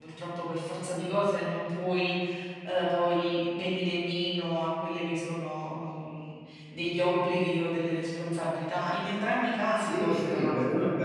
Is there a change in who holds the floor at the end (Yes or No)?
Yes